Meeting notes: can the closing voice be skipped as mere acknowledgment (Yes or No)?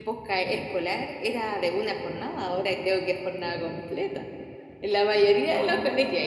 Yes